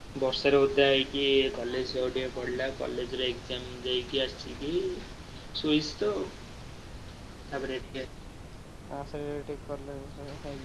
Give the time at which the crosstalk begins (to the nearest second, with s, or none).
none